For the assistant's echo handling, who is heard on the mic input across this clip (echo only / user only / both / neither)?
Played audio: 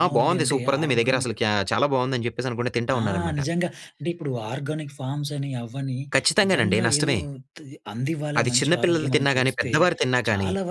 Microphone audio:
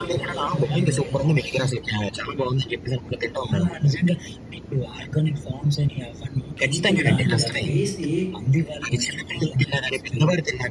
both